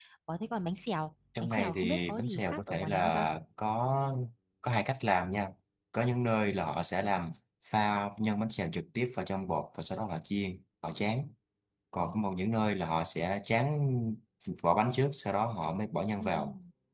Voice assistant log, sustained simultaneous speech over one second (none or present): present